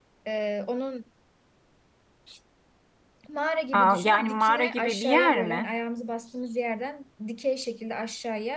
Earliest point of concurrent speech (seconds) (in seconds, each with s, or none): 3.7 s